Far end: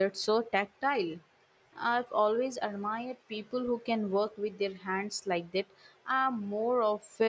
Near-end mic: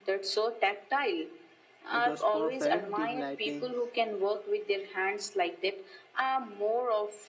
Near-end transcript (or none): It was perfect, dim lighting,